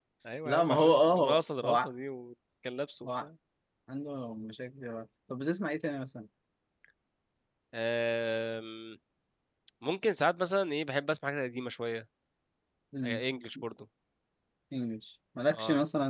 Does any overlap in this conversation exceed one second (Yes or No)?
Yes